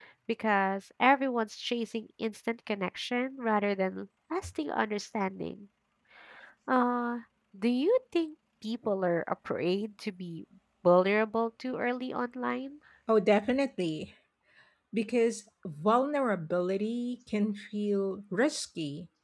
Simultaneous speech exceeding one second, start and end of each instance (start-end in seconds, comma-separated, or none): none